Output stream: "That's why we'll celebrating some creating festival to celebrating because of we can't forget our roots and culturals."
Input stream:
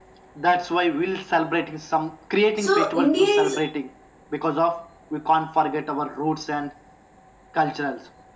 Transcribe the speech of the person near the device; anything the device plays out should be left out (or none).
So India is